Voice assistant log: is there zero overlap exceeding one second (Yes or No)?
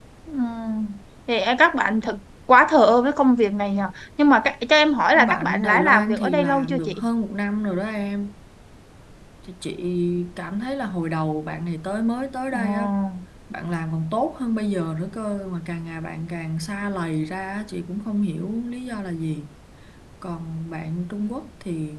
No